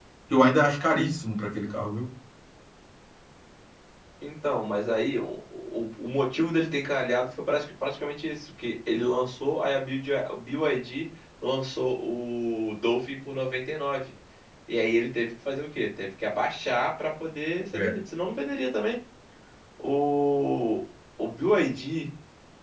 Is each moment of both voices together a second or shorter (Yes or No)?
Yes